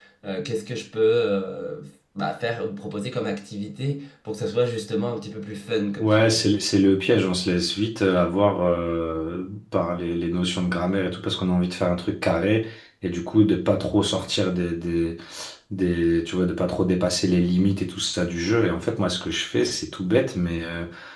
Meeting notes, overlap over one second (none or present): none